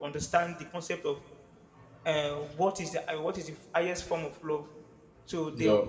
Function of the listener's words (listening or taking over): listening